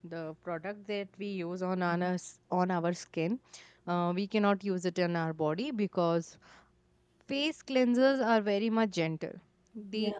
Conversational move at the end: listening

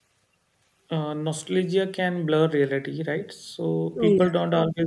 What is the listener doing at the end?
listening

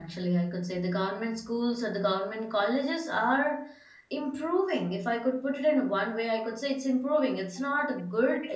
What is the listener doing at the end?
listening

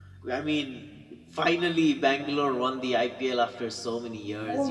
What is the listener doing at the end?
taking over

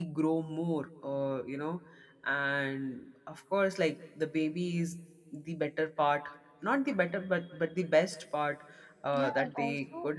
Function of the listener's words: taking over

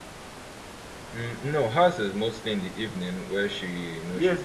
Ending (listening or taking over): taking over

